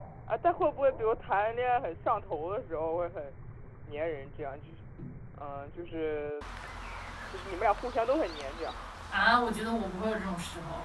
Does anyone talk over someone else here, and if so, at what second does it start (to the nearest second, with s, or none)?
none